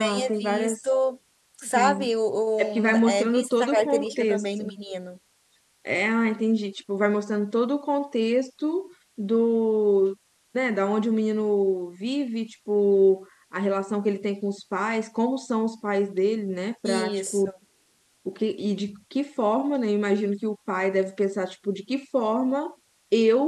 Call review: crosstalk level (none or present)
present